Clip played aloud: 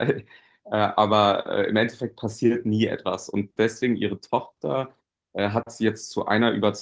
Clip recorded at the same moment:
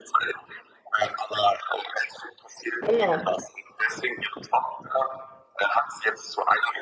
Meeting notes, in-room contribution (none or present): present